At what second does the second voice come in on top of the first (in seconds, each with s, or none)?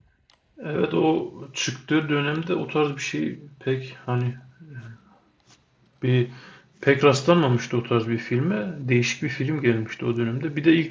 none